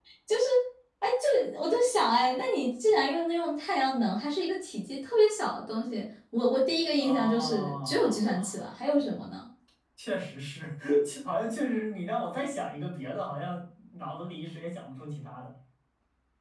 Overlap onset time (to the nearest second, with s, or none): 7 s